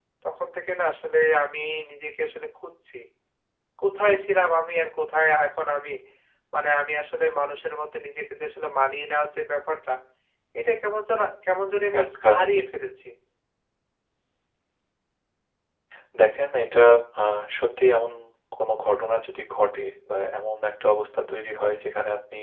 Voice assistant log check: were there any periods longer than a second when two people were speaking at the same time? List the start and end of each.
none

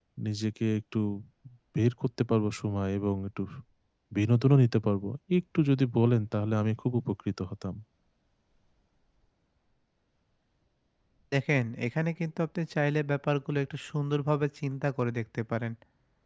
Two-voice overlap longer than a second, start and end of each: none

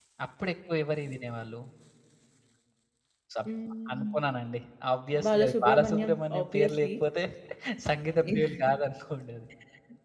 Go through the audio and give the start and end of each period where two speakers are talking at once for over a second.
5.2-6.9

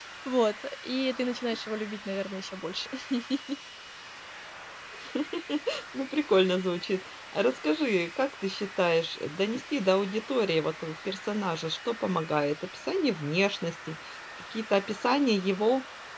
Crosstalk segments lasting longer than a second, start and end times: none

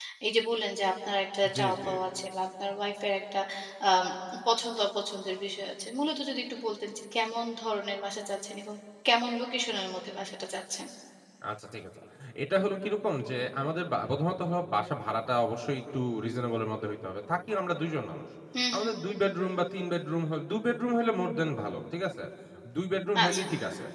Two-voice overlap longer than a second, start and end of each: none

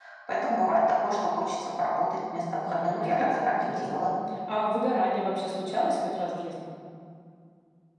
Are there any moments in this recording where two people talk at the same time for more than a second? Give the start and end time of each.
2.7-4.0

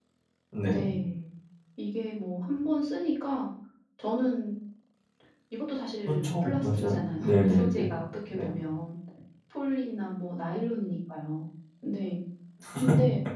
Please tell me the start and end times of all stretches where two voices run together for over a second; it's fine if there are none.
6.1-7.7

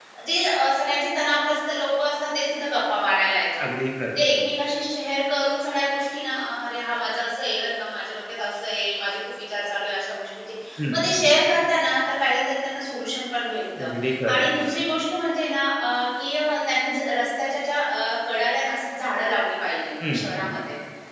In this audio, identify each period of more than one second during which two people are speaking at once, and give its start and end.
none

